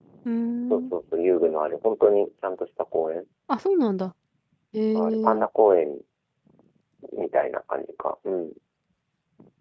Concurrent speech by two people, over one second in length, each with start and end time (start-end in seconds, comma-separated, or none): none